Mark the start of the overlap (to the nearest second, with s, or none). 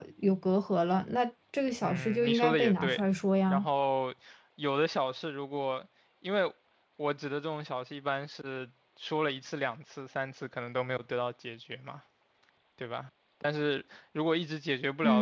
2 s